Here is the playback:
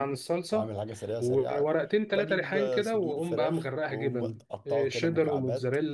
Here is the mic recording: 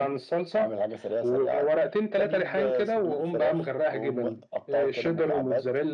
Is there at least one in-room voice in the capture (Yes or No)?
No